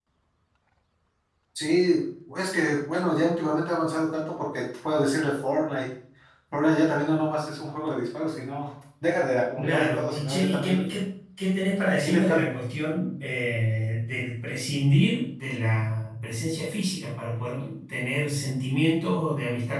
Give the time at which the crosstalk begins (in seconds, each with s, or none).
9.6 s